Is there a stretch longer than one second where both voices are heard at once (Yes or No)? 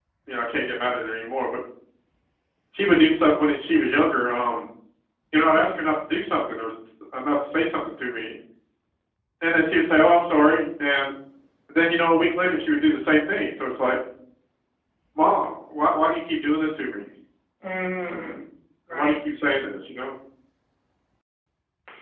No